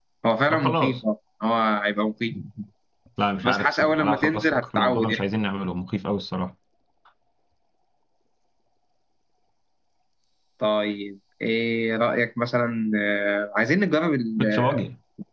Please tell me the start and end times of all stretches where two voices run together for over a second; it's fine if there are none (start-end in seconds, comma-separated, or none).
3.4-5.2